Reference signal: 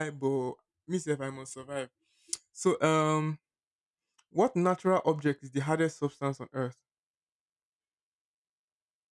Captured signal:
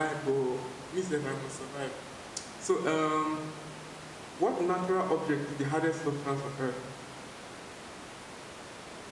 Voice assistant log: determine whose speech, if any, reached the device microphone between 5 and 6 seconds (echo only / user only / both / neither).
echo only